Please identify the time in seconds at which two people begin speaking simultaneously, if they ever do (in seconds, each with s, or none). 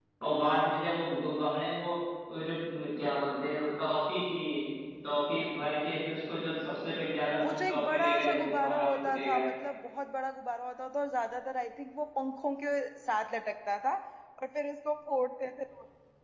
7.4 s